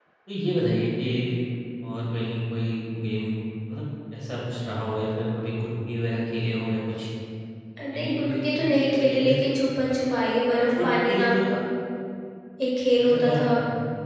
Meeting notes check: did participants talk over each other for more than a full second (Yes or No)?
Yes